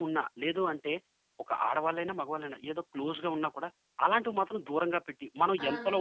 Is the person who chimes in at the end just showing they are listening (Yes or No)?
No